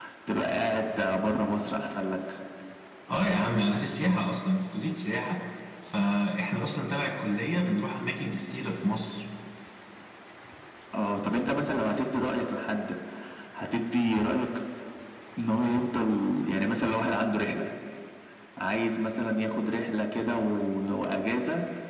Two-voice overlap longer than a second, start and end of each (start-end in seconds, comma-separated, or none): none